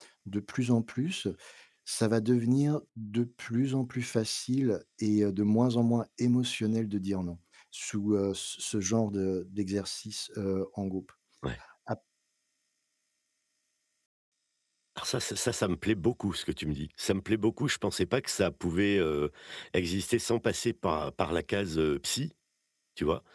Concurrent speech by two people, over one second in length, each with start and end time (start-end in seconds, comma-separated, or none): none